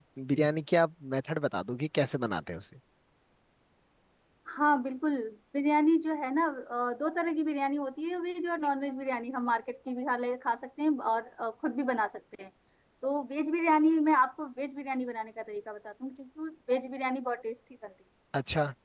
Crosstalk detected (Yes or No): No